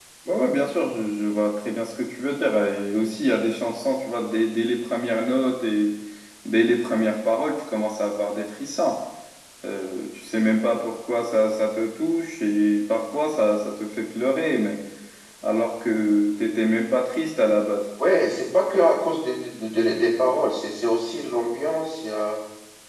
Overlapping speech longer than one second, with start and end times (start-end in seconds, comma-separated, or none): none